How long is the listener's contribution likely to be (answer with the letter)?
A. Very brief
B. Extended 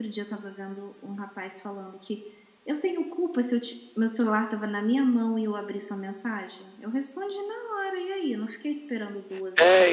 B